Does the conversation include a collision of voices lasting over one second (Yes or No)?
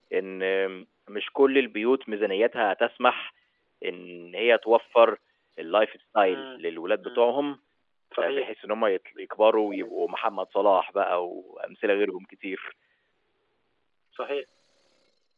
No